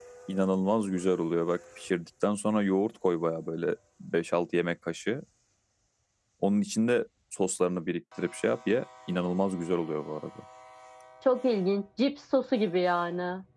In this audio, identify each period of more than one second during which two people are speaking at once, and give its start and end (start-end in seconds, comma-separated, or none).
none